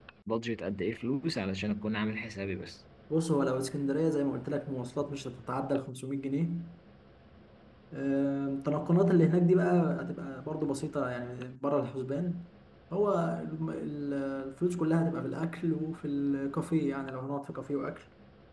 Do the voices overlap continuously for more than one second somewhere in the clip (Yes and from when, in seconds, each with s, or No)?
No